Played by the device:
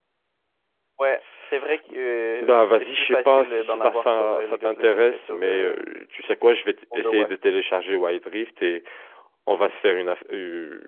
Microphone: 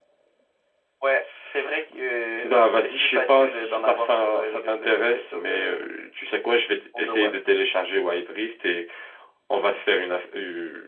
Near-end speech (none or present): none